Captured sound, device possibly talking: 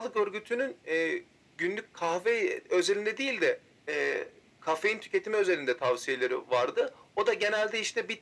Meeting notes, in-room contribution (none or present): none